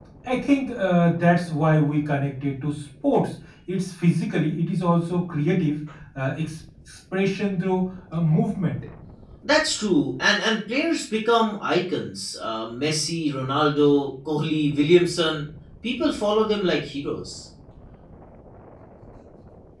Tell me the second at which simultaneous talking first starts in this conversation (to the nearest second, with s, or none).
none